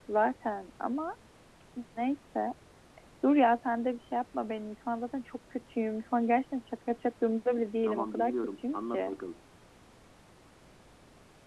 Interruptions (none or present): present